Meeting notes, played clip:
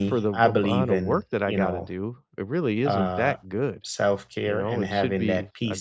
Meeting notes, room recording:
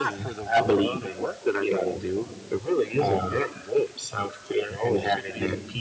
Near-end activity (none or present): none